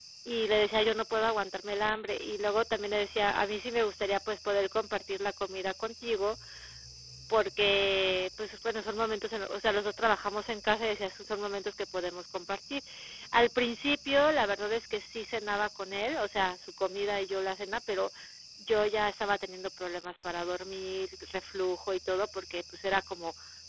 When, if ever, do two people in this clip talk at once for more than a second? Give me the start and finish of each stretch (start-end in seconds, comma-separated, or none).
none